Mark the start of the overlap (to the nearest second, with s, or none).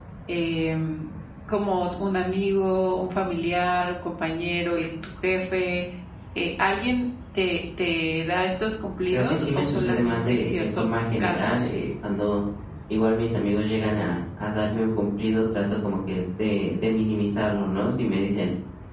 9 s